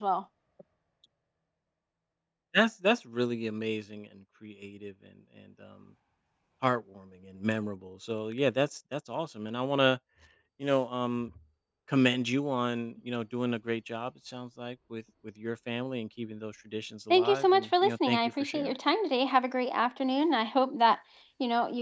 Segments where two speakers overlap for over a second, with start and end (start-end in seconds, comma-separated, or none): 17.1-18.7